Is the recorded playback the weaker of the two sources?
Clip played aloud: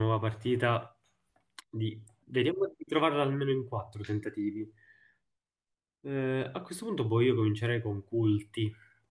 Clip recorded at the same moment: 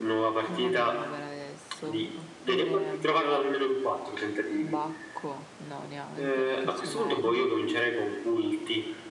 No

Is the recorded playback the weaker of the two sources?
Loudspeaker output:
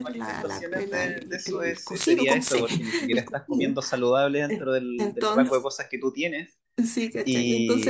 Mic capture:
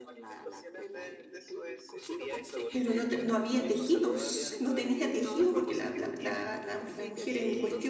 Yes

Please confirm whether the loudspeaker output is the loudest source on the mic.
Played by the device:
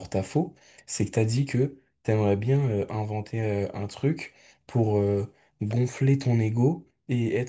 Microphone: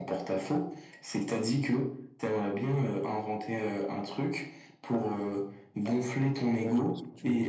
Yes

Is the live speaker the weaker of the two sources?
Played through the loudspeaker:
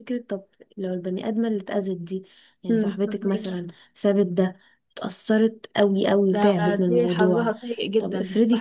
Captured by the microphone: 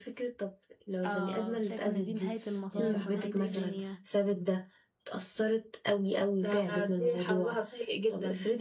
Yes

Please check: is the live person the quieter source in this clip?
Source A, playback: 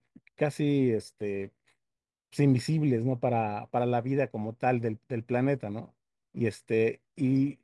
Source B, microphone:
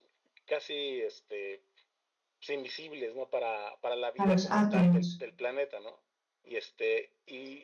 No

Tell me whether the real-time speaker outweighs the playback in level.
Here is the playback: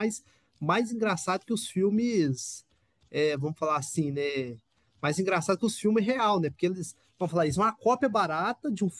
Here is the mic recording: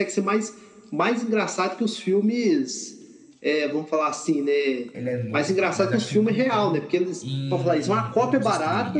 No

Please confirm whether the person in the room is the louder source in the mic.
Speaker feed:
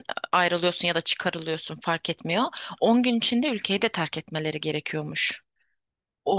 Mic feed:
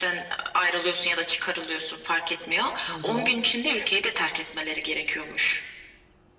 No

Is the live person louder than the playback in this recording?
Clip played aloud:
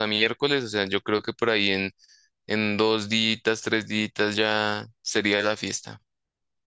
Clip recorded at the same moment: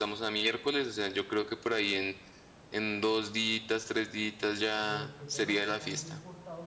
No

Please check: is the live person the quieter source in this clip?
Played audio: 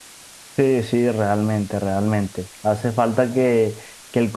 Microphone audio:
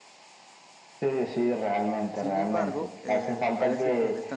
Yes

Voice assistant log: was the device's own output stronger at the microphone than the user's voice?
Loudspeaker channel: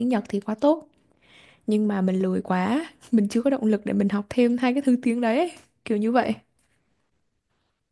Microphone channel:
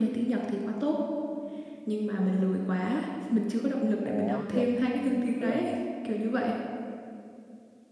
Yes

